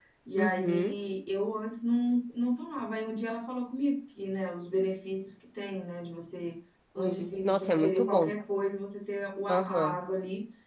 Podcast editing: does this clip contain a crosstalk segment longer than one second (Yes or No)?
Yes